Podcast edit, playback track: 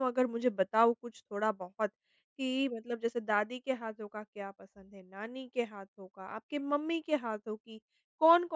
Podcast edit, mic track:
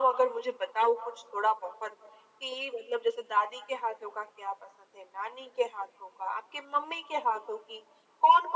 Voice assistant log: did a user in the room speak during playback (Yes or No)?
No